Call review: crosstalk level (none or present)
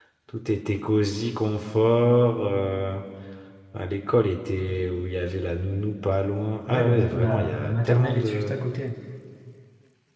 present